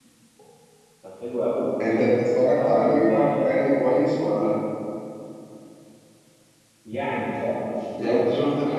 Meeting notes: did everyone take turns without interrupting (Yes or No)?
No